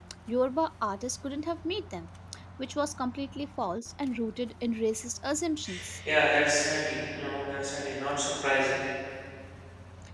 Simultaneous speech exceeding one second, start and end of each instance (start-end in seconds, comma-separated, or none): none